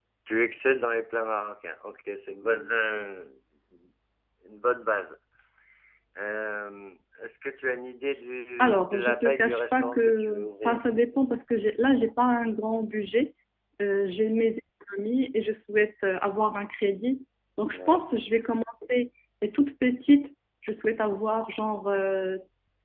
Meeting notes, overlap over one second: present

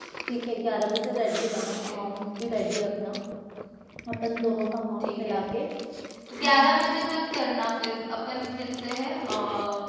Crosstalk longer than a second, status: none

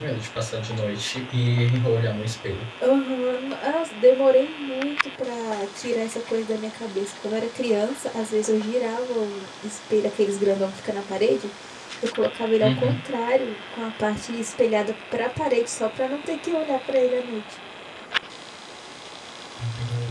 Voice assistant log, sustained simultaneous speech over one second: none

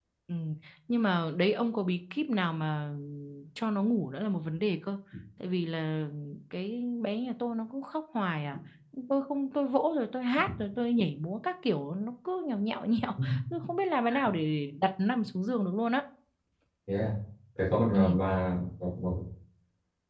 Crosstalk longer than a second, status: none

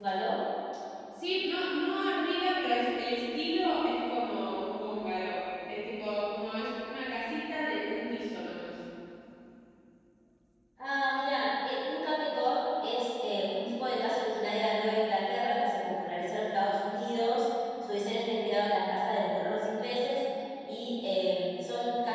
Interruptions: none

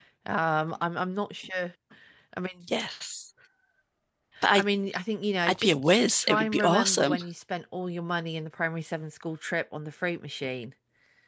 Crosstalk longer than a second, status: present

